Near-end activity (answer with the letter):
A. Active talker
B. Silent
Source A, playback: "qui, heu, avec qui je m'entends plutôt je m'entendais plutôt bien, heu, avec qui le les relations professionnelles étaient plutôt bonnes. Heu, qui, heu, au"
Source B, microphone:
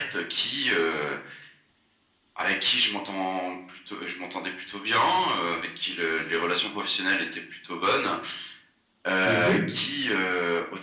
A